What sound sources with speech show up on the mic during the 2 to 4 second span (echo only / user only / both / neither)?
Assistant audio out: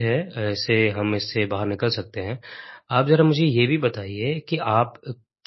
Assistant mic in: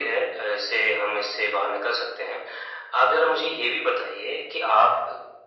echo only